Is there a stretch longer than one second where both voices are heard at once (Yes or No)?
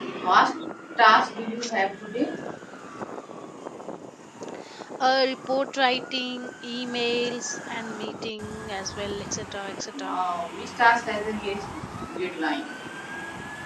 No